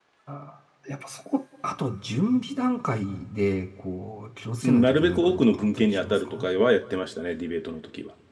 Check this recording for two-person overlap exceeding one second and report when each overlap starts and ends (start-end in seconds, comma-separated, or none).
4.6-6.5